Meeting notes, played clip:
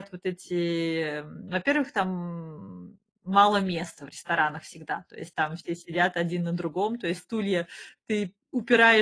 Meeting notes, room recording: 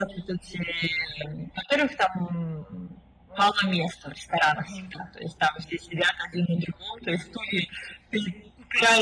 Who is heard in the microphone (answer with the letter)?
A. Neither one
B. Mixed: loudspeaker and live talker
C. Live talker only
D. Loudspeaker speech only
B